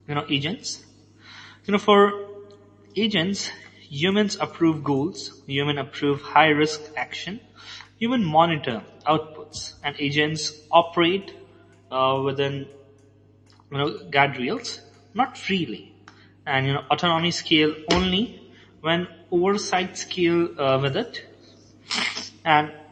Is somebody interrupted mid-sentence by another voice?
No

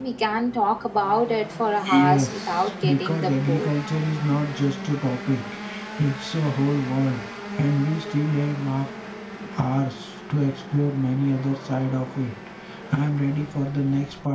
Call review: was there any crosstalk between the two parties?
Yes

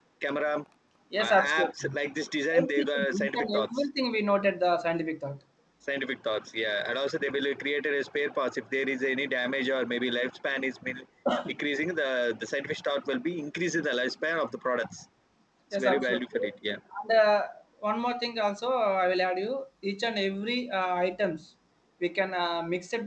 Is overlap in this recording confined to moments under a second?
No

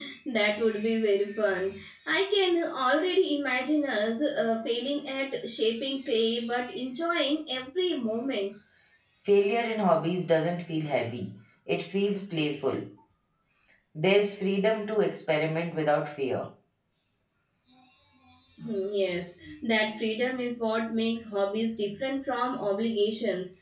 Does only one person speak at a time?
Yes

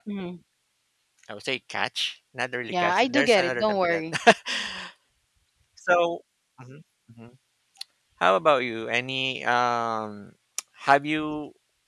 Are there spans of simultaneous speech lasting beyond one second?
Yes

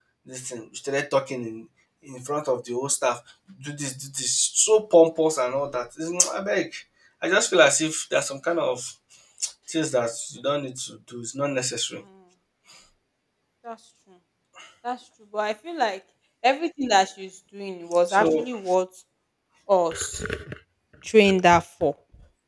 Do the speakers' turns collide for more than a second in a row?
No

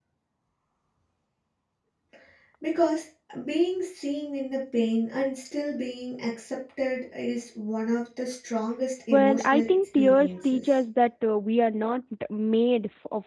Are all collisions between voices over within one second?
No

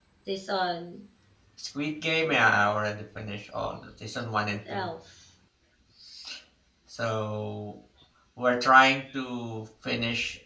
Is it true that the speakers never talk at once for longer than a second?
Yes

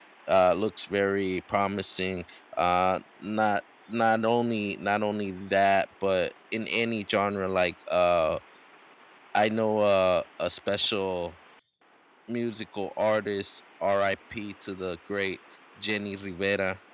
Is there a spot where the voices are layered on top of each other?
No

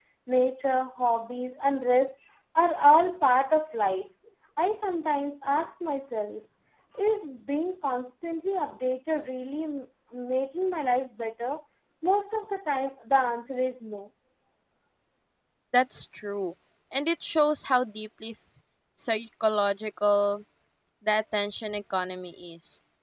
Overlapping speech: No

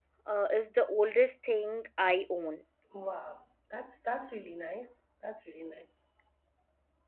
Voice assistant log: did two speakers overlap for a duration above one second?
No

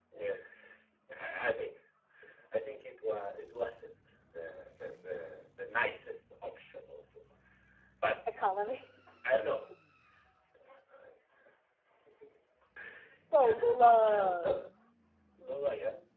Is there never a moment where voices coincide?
No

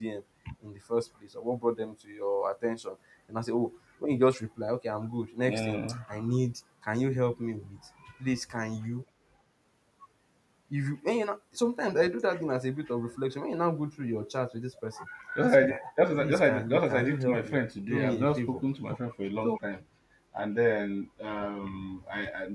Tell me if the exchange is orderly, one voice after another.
No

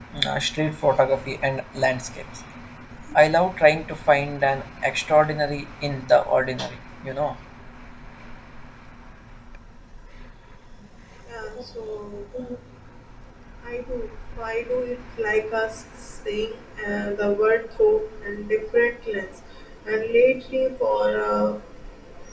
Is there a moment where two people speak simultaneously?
No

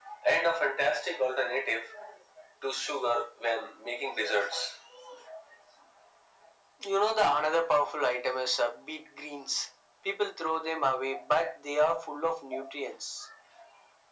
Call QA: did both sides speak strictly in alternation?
Yes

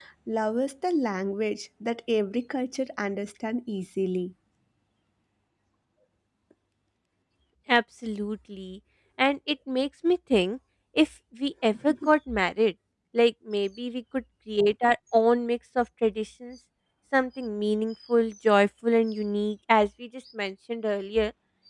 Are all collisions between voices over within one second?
Yes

